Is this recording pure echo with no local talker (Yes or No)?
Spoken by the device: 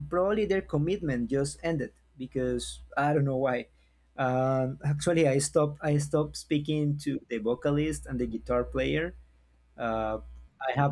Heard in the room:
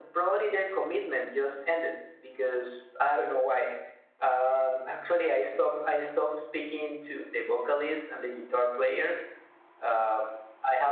Yes